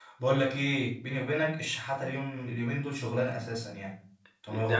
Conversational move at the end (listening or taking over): taking over